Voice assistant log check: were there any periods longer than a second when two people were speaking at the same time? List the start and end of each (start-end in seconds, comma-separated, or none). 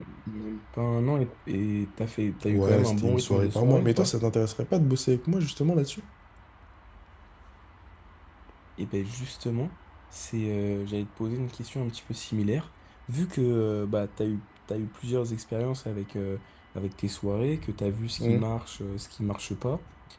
2.5-4.1